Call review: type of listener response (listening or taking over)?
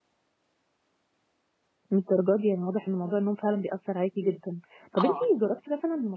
listening